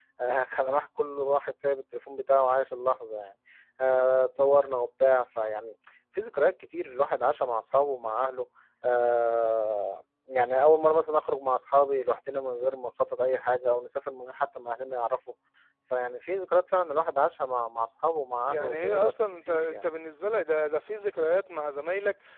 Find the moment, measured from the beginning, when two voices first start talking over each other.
18 s

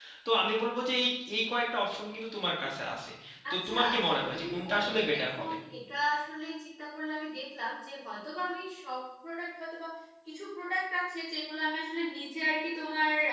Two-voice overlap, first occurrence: 4 s

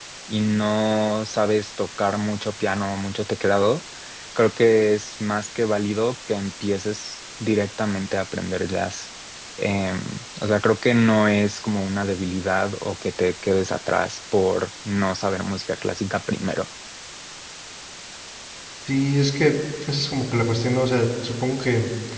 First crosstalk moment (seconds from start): none

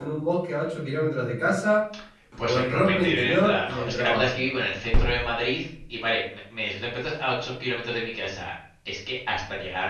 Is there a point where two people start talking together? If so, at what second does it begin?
2 s

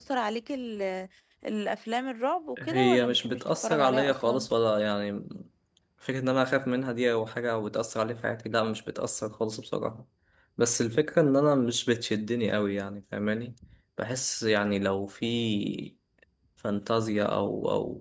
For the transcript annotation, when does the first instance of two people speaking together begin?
3 s

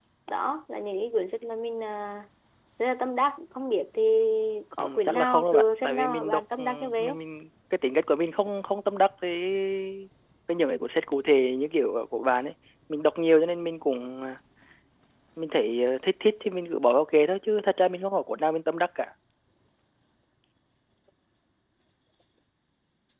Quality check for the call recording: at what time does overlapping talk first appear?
5 s

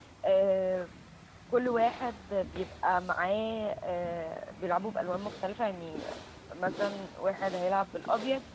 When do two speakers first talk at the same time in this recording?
none

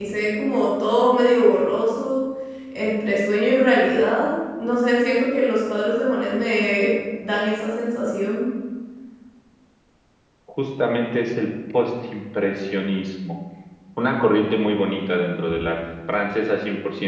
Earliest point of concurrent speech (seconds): none

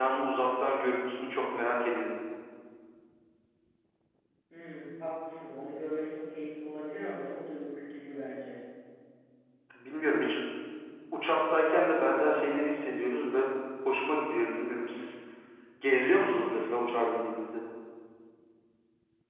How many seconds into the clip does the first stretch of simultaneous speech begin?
none

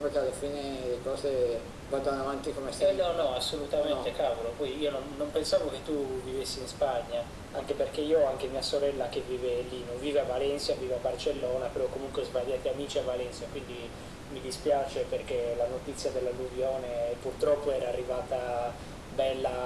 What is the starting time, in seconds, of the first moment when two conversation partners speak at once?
3 s

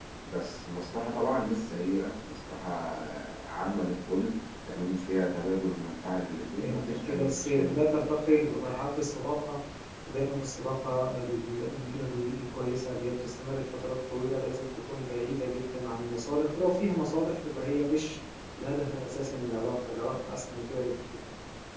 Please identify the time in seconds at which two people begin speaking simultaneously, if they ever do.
7 s

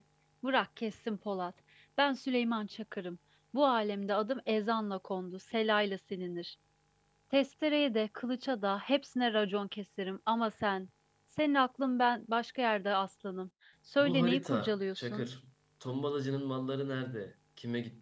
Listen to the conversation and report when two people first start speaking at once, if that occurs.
14 s

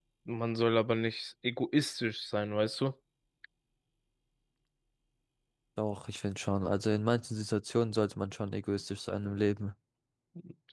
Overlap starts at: none

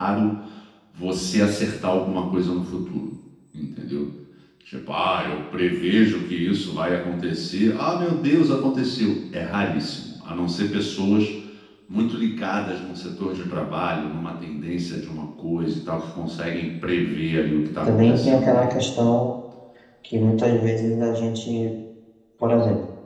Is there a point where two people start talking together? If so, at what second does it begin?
18 s

